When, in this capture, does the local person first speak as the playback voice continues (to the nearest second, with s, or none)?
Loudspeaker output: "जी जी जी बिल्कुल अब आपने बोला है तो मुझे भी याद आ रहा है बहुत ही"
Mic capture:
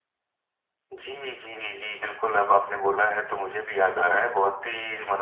none